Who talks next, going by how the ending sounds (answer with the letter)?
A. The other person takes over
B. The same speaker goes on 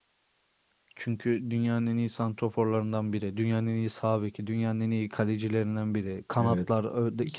A